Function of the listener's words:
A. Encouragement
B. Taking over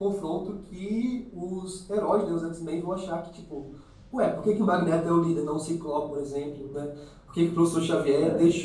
A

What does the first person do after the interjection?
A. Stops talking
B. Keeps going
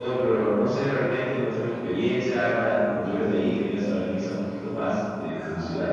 A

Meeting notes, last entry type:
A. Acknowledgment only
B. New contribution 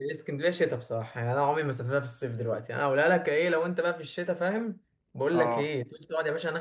A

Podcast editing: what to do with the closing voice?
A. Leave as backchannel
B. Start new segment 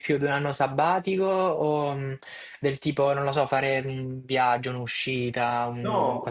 B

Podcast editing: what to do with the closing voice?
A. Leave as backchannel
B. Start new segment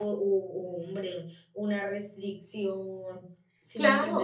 B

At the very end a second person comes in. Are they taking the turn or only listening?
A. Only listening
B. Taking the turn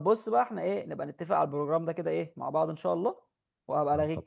A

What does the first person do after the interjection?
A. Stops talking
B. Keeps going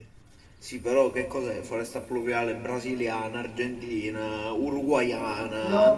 A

